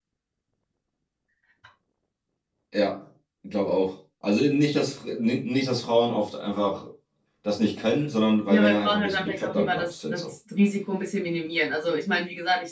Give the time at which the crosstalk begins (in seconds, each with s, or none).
8.5 s